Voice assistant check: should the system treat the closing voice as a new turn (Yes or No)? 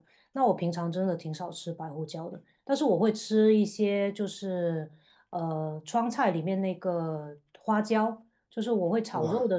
No